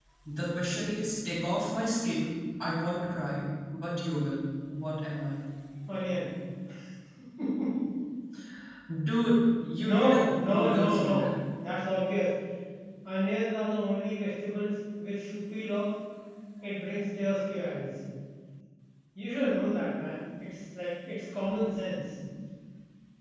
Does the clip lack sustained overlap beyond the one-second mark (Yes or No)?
No